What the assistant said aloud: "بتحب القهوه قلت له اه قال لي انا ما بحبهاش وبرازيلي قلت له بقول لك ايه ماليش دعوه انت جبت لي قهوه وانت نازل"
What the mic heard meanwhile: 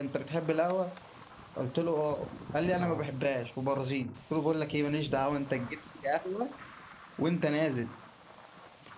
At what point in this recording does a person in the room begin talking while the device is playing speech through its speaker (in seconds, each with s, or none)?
2.8 s